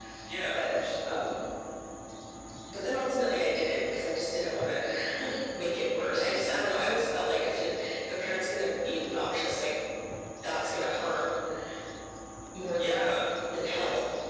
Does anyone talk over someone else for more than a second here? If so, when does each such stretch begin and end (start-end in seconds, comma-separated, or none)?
none